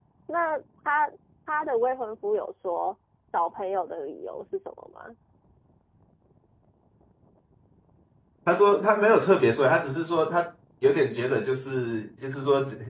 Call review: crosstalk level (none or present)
none